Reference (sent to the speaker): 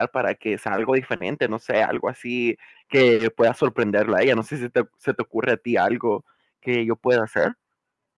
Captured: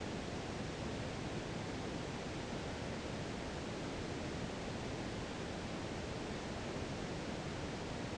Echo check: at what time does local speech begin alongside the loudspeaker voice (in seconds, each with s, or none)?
none